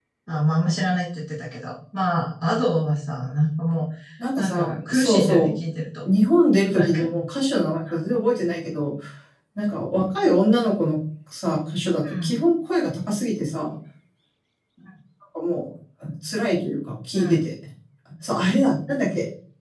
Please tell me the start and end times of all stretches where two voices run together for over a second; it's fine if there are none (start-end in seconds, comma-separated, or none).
4.4-5.6